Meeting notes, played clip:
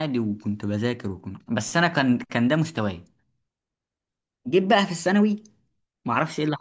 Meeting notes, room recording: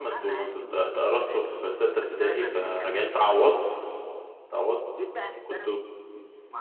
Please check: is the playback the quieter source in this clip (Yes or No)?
Yes